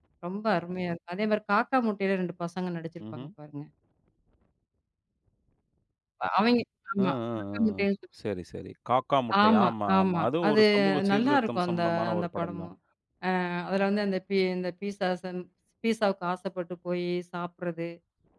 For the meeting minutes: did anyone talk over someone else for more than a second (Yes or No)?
Yes